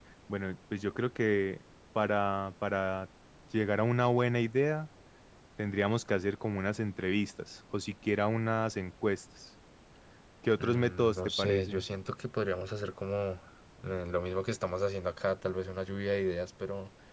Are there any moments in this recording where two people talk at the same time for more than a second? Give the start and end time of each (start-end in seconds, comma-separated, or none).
10.6-11.8